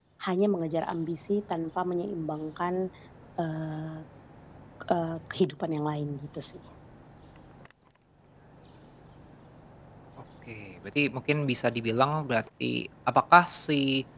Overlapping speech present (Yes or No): No